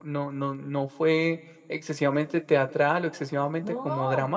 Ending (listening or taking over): listening